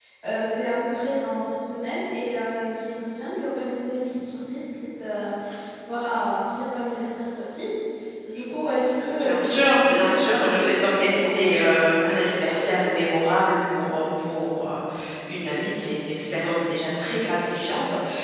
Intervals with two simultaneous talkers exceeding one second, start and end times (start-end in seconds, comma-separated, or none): 9.2-11.3